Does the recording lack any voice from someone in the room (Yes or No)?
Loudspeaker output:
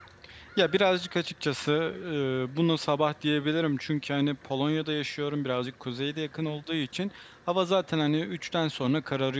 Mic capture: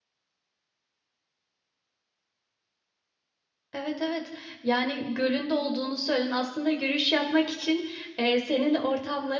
No